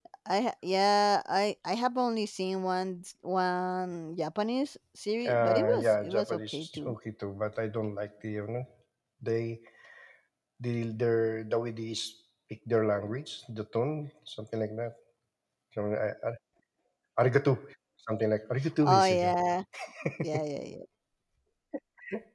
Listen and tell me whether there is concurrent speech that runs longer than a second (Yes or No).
Yes